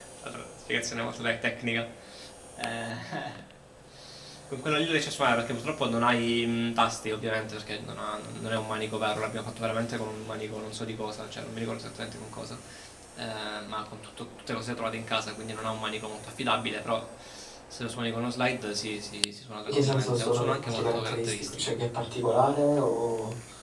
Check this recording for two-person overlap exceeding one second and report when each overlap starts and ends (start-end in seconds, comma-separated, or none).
19.7-21.8